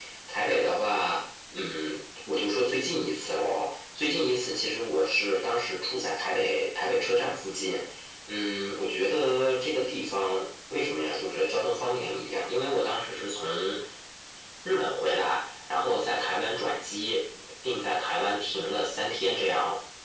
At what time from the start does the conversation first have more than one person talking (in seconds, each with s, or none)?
none